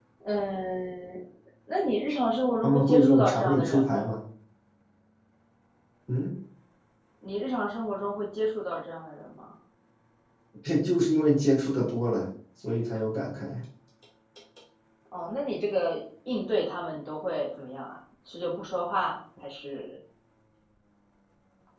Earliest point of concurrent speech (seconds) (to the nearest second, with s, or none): 3 s